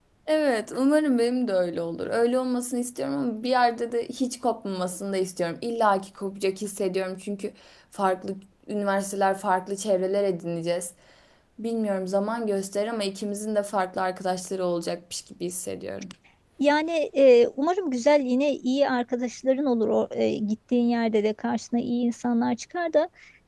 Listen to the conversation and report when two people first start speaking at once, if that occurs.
none

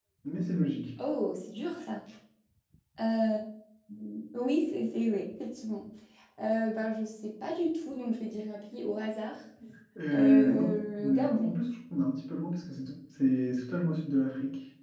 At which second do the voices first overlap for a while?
10.1 s

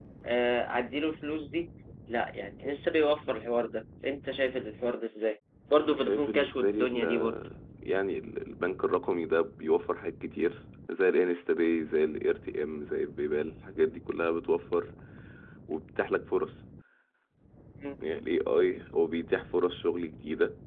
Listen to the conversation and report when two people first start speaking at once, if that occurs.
5.8 s

